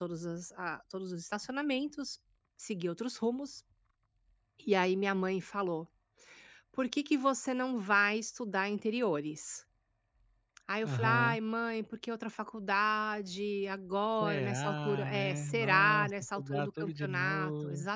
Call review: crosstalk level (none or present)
present